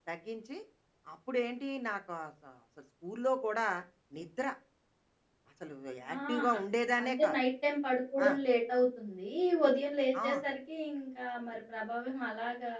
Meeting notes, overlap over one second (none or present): none